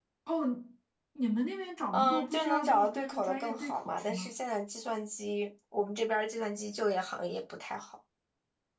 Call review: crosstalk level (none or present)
present